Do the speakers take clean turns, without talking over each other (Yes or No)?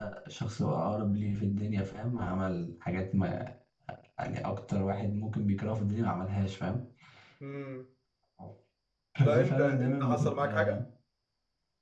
No